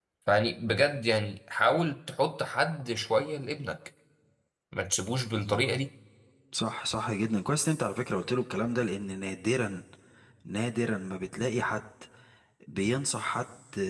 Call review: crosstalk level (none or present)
none